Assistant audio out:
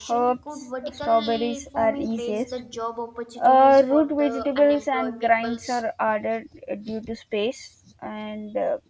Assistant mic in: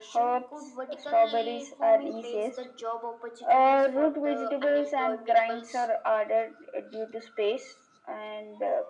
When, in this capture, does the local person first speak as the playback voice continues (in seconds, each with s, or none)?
none